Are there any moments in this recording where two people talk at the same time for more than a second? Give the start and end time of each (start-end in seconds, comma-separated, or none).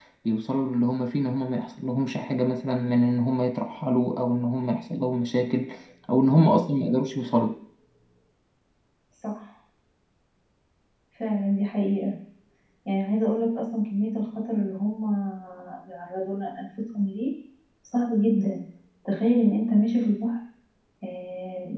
none